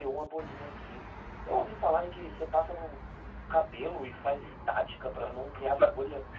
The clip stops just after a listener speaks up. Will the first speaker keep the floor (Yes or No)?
No